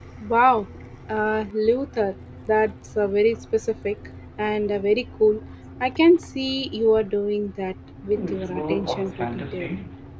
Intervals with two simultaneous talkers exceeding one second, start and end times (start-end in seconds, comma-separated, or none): 8.1-9.7